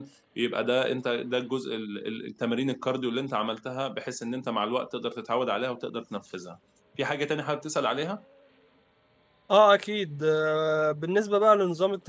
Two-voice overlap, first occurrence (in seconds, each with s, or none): none